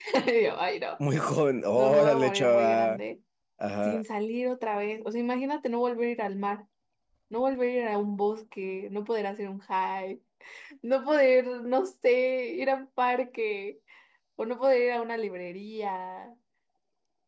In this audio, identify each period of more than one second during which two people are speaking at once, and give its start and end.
1.8-3.0

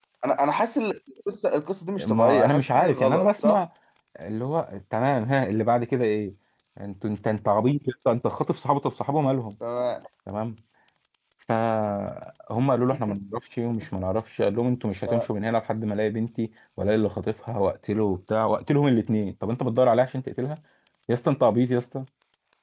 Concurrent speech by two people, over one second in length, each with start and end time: 2.0-3.6

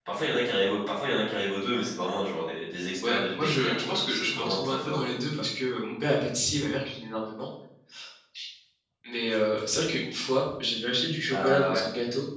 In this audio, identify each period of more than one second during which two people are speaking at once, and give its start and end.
3.0-5.0

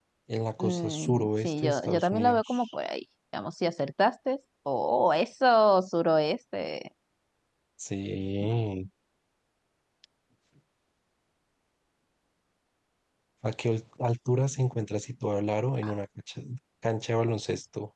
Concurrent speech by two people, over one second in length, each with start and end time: 0.6-2.6

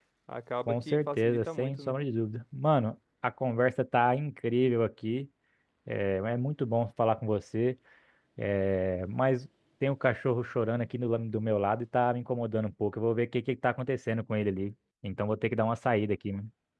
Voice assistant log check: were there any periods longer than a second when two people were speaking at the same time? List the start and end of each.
0.7-1.9

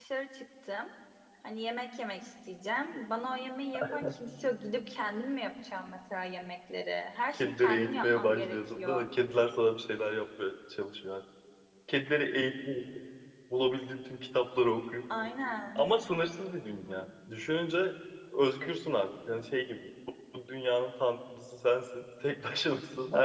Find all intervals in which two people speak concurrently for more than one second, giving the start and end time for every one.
7.3-9.1

